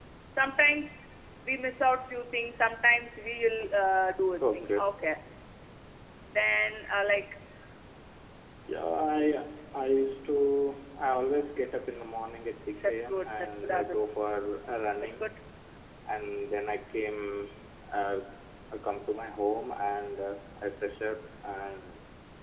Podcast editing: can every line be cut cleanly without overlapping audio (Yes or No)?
No